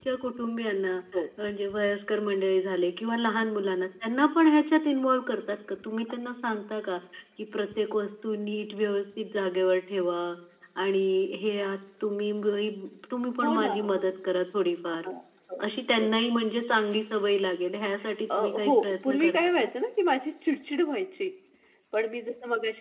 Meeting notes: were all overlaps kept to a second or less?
No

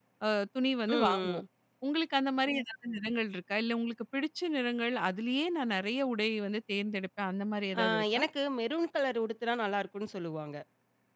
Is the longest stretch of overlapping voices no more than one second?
Yes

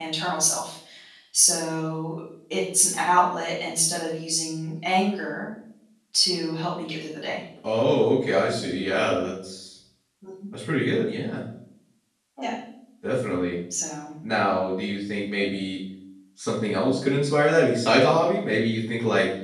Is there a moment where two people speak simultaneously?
No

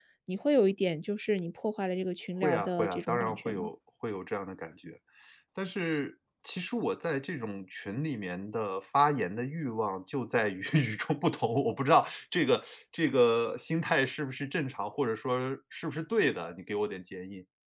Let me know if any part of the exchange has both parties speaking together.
Yes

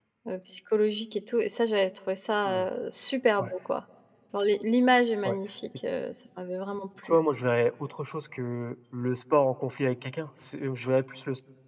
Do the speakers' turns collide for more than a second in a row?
No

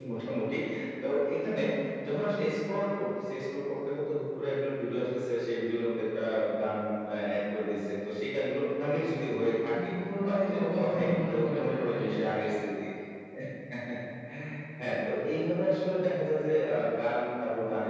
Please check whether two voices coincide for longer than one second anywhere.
Yes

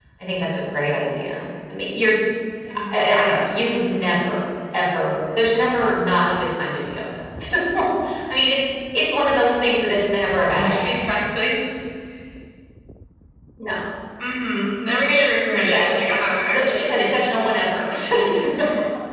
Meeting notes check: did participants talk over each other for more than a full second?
Yes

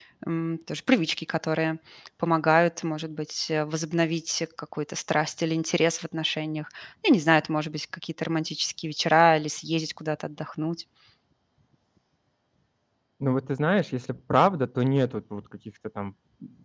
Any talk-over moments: No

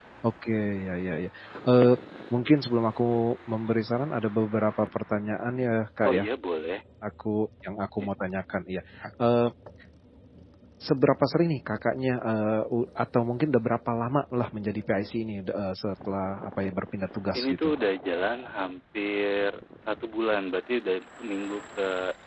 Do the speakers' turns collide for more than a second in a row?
No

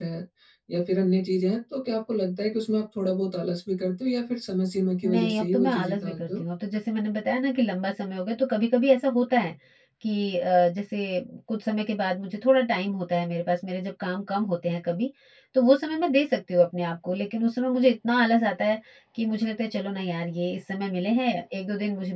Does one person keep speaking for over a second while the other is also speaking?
Yes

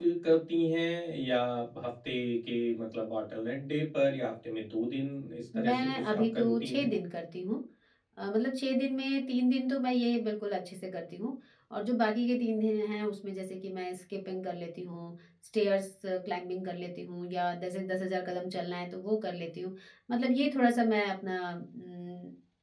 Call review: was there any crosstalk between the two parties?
Yes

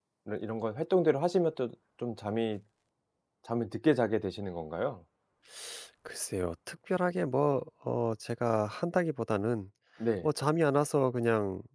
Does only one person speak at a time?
Yes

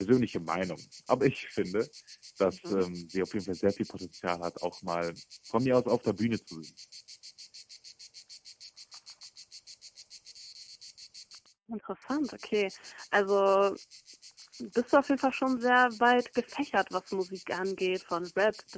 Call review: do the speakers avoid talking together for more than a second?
Yes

